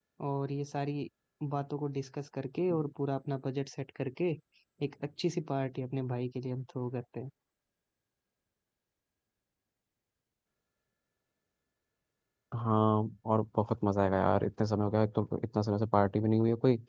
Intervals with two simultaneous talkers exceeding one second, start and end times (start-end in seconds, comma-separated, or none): none